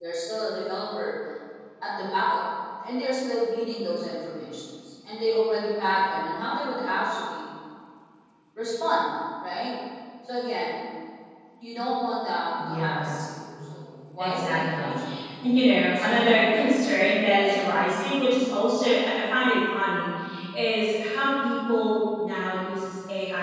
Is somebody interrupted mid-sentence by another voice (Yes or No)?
Yes